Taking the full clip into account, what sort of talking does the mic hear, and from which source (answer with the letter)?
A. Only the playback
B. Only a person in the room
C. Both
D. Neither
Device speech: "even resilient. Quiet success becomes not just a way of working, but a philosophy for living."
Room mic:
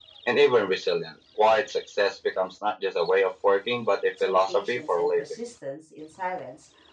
C